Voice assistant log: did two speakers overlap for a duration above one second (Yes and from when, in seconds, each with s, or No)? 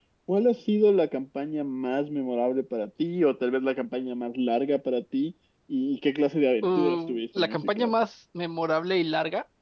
Yes, from 6.6 s